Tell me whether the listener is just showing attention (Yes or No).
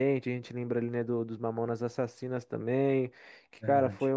Yes